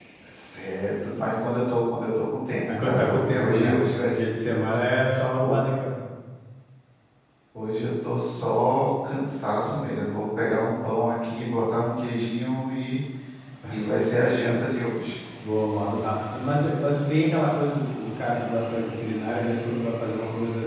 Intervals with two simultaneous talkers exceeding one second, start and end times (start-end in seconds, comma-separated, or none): 2.7-4.2